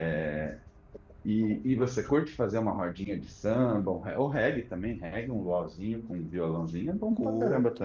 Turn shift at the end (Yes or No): Yes